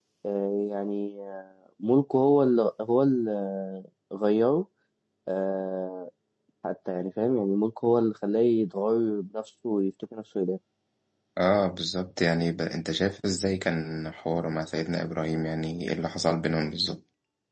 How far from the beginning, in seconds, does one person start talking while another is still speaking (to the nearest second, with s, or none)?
none